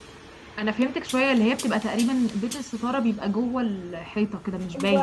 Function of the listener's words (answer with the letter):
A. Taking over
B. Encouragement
A